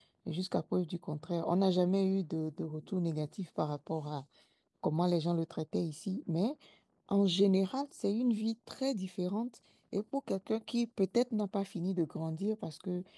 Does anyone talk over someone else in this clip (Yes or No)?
No